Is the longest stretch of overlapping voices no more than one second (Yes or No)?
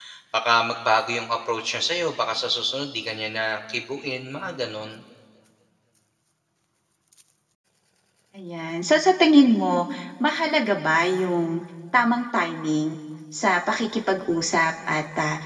Yes